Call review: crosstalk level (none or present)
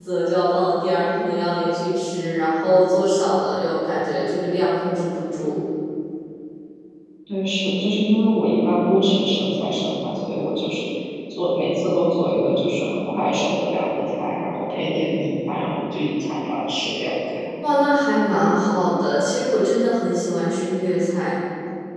none